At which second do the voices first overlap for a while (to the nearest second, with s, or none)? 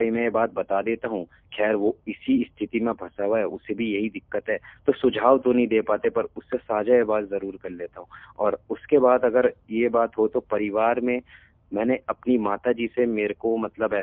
none